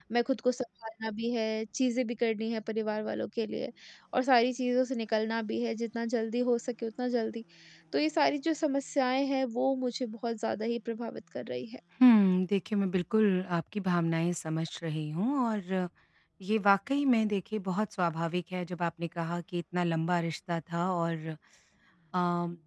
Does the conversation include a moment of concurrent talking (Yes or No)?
No